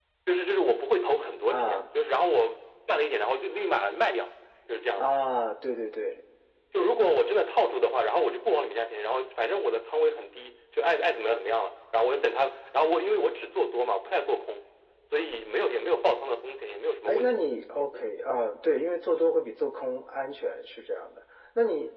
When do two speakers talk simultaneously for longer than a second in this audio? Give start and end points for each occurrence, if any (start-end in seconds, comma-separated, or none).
none